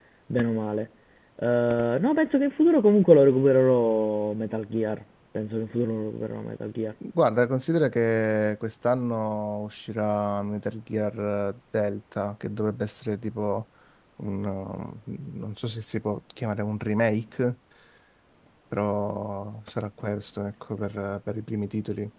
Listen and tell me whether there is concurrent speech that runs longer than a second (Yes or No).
No